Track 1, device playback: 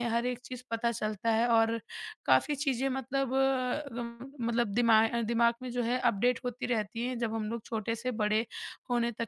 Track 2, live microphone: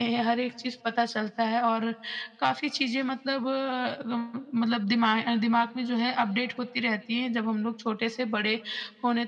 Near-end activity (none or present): none